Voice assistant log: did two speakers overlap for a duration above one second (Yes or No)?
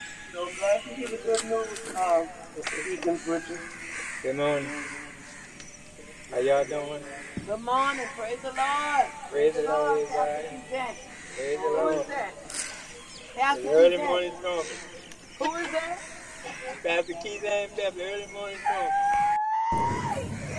Yes